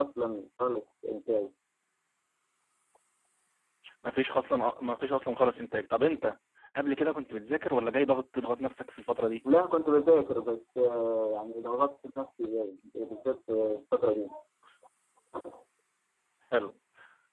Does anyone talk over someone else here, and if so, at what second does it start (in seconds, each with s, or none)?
none